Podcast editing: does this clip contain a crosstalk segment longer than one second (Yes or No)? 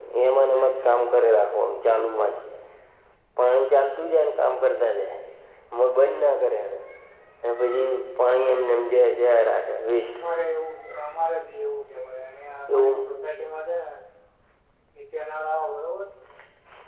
No